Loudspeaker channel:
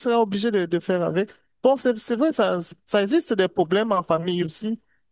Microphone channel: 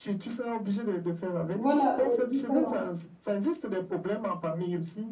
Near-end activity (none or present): present